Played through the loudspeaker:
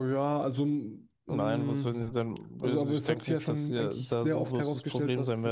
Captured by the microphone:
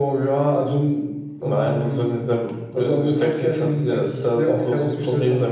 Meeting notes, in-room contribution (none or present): none